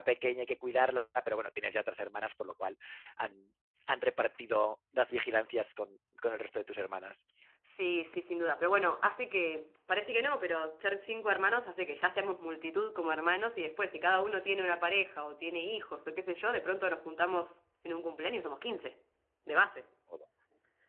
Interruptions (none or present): none